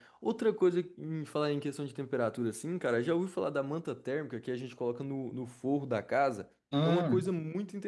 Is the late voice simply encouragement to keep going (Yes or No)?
Yes